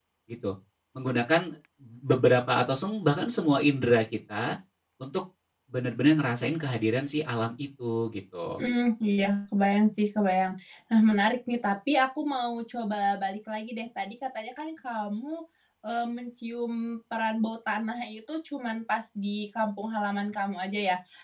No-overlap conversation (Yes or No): Yes